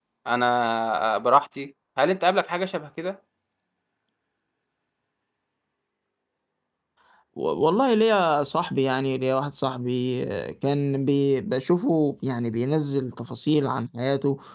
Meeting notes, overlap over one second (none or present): none